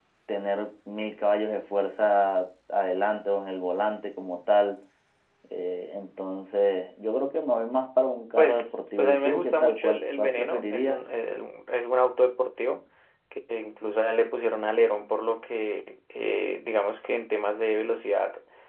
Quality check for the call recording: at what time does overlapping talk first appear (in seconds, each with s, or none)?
8.4 s